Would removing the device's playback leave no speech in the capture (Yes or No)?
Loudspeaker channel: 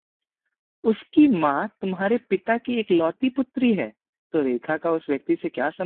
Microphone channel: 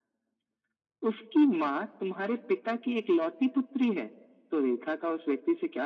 Yes